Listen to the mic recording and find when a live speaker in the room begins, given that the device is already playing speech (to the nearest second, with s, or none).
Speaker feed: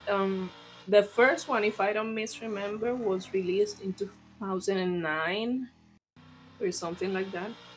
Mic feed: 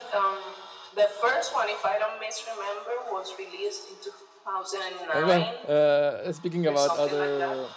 5 s